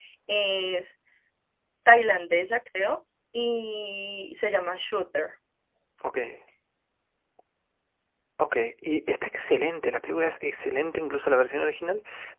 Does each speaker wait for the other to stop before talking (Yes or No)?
Yes